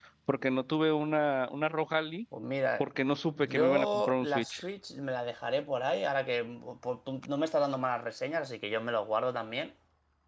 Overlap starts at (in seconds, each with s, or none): 3.4 s